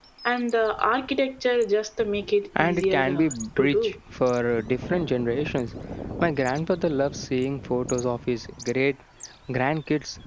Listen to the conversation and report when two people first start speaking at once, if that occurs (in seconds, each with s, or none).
2.6 s